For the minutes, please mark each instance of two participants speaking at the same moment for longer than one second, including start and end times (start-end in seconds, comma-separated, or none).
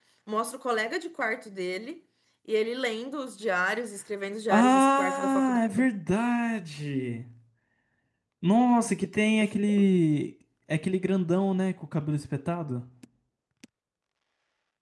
4.5-5.9